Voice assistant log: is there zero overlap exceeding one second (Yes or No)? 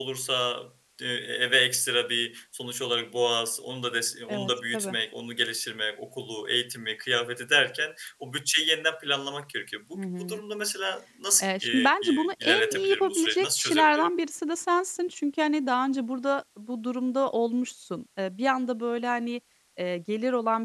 No